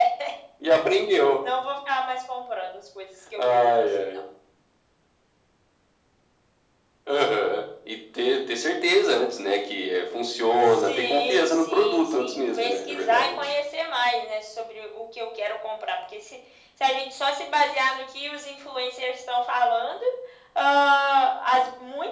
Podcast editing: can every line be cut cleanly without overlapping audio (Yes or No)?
No